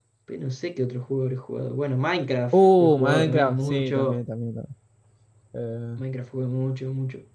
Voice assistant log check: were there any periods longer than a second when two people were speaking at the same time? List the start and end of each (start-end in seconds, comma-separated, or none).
2.5-4.2